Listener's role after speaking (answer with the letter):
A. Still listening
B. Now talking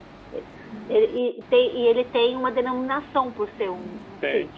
B